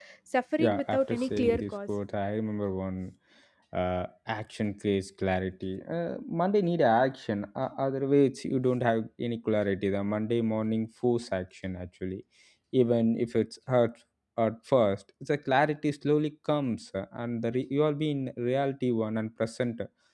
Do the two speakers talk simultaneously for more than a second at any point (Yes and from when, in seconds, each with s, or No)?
Yes, from 0.6 s